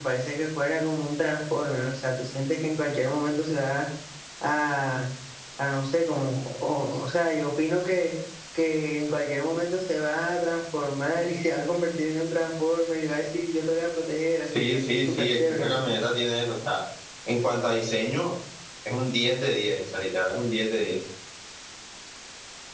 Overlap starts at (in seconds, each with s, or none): 14.5 s